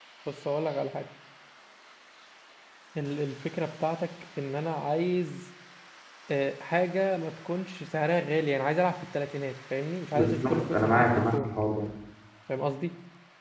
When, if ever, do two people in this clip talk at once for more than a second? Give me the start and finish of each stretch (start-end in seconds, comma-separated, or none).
10.2-11.5